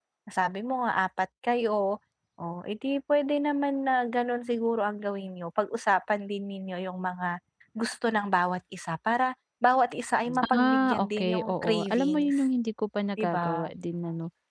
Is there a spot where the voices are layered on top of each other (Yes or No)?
Yes